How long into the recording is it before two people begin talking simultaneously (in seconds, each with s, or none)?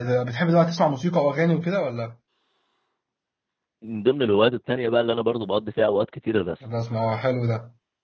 none